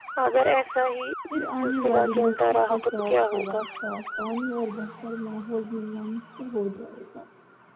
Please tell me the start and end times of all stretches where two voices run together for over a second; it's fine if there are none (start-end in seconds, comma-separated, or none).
1.6-3.6